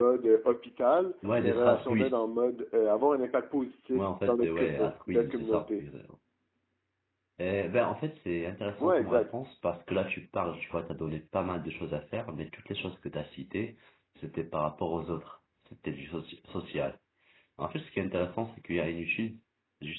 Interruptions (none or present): present